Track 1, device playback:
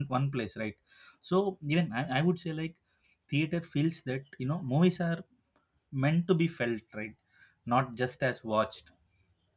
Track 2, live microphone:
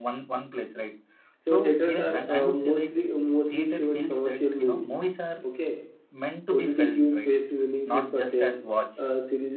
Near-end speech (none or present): present